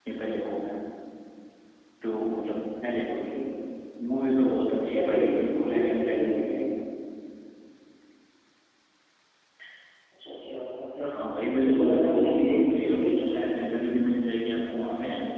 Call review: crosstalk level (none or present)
present